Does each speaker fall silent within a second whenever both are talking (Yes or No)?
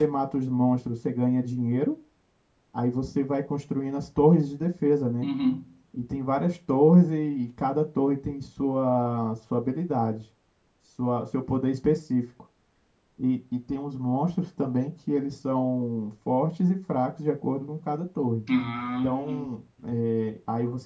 Yes